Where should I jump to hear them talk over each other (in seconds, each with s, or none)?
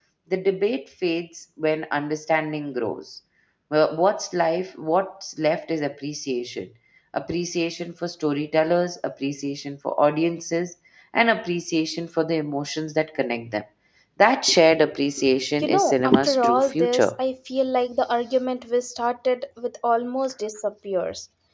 15.6 s